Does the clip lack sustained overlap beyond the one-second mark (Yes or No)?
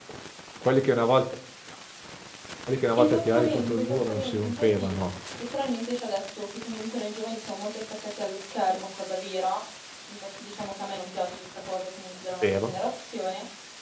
No